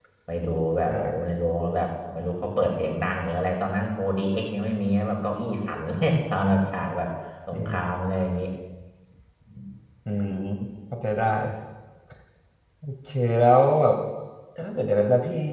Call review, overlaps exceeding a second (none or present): none